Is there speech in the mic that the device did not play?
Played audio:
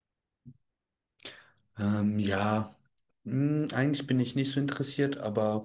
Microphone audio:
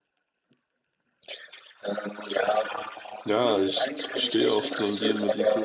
Yes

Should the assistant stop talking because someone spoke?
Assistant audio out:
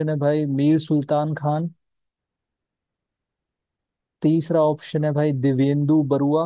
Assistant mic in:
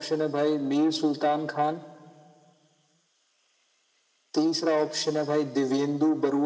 No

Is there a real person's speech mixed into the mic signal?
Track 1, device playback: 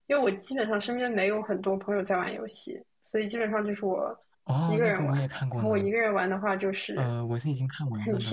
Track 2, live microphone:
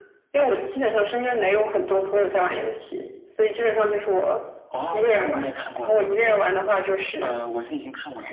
No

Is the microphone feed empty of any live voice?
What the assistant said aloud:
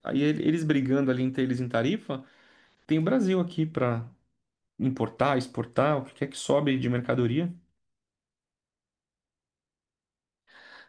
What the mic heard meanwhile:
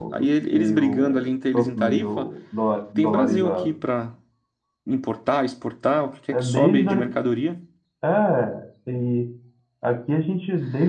No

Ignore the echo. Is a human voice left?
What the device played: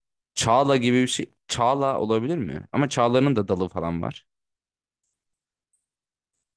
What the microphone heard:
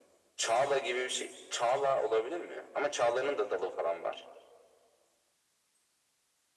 No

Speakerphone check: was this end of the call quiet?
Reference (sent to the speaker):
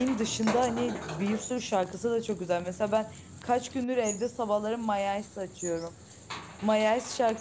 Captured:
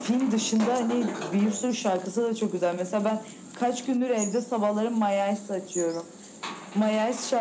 Yes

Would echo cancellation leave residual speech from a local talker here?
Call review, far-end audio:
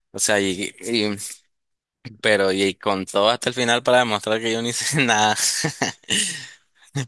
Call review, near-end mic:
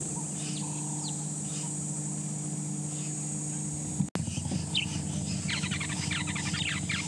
No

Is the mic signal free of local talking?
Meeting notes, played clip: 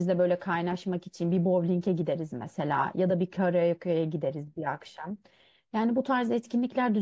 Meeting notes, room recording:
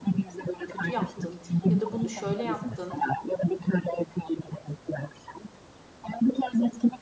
No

